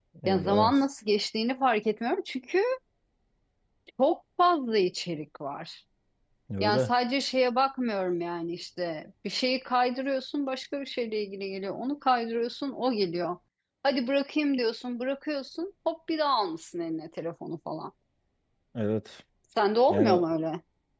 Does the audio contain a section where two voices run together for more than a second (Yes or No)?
No